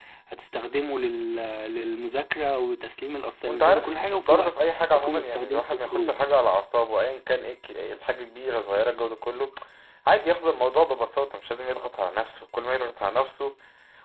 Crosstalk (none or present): present